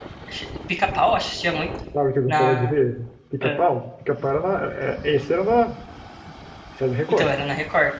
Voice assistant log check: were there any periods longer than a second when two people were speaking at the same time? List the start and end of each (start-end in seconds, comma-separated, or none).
none